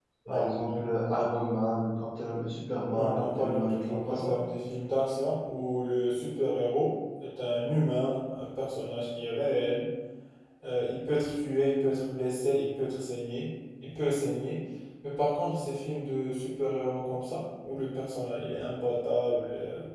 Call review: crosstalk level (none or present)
present